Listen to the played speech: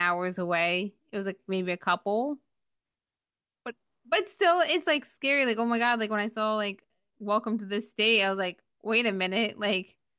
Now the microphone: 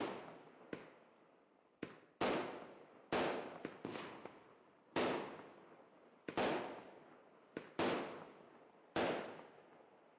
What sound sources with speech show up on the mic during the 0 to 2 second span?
neither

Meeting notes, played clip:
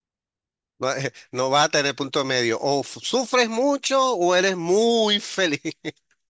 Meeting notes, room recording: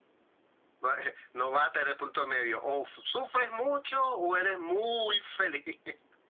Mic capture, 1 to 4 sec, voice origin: echo only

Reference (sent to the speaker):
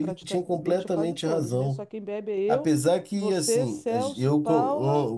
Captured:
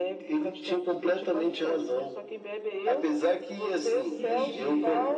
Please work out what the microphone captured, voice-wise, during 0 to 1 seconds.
echo only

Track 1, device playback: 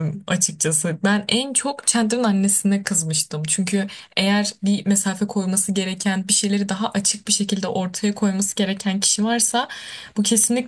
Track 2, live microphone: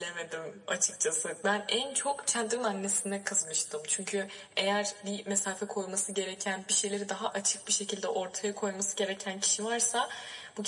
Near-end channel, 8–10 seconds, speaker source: echo only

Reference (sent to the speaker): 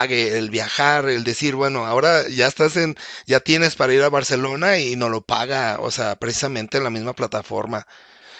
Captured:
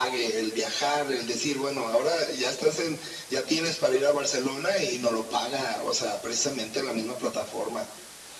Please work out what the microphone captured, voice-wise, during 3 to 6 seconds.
echo only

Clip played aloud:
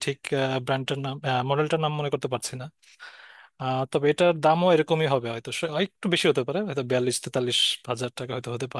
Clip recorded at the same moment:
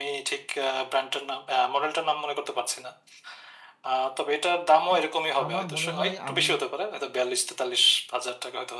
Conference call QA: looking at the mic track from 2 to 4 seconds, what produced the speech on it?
echo only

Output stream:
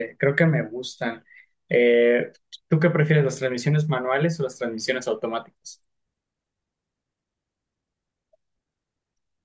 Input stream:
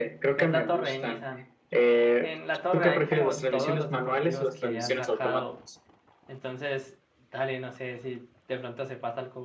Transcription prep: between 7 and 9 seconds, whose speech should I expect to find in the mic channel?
user only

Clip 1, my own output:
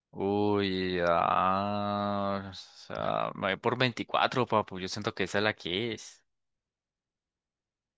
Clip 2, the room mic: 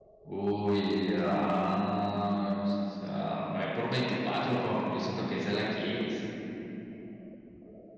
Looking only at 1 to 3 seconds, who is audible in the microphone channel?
echo only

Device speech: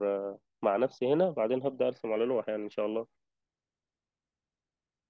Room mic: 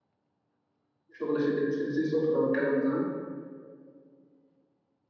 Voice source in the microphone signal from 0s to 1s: neither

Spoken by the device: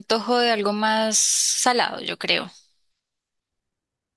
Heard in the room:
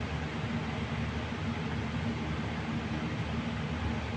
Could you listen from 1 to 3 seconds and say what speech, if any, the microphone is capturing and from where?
neither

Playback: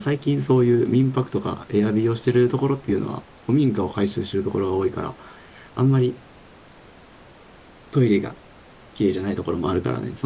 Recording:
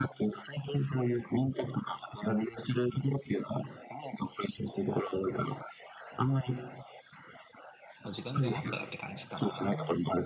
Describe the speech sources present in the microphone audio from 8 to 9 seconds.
both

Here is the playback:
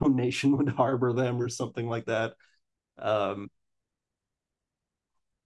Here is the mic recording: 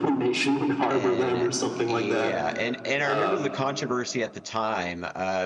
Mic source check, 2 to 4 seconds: both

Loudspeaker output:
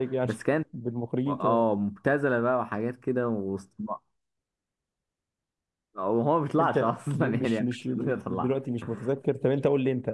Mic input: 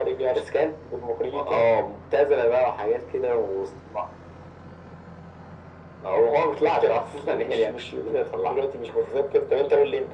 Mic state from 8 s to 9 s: echo only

